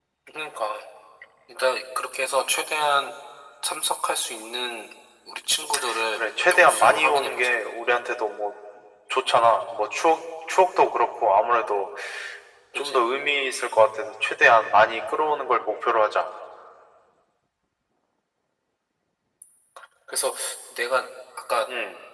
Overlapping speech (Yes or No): Yes